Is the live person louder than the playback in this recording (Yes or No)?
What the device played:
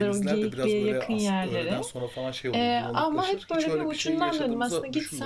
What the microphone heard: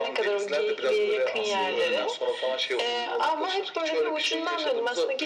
No